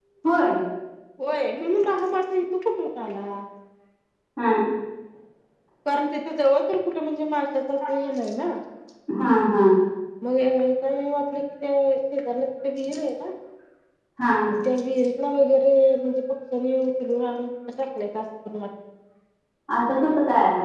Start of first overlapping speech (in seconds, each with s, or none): none